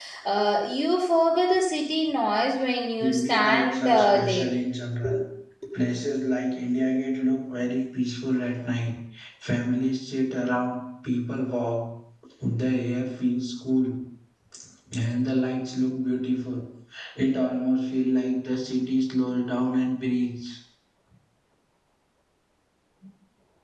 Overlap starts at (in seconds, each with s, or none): 3.0 s